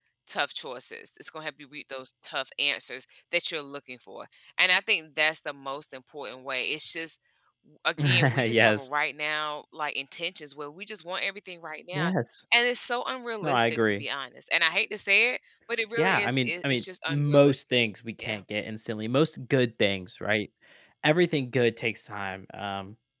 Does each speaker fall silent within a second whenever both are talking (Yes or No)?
No